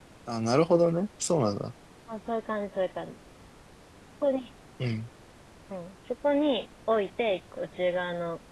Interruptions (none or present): none